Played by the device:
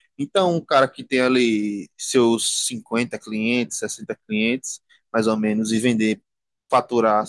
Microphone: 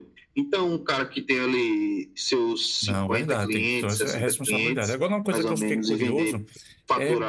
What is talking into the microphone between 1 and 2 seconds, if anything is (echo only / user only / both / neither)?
echo only